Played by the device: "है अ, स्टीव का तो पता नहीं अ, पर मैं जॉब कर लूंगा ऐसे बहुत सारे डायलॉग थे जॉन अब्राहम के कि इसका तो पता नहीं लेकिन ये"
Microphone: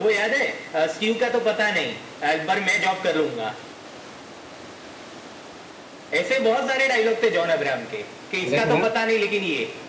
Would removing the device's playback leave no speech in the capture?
No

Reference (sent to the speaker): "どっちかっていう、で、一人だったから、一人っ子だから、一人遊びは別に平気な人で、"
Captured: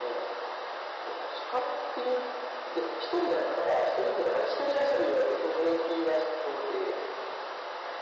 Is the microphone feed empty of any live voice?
Yes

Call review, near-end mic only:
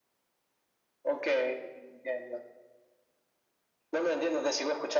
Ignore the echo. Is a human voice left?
No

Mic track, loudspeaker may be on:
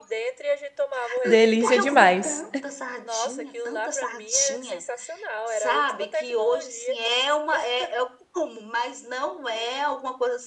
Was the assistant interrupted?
Yes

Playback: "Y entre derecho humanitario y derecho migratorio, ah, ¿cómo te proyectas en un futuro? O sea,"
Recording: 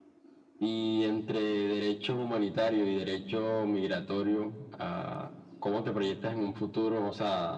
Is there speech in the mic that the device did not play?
No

